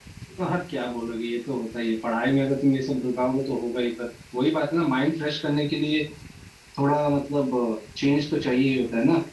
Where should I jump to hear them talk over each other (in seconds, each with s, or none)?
none